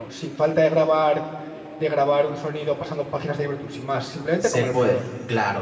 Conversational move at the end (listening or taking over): taking over